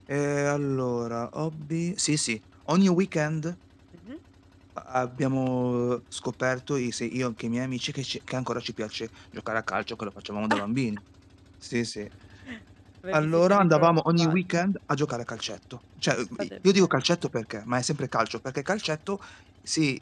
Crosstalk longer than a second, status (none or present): present